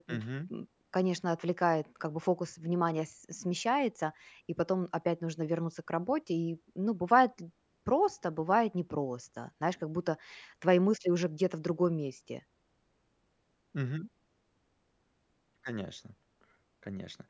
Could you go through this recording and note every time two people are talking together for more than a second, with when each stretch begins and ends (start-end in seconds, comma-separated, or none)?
none